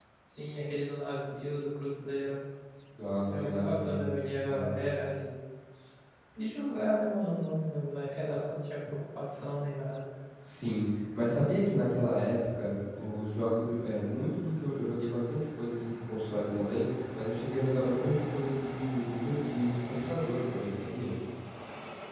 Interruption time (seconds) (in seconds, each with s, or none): 3.3 s